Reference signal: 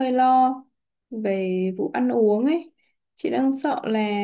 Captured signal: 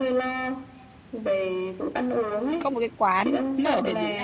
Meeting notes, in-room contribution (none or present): present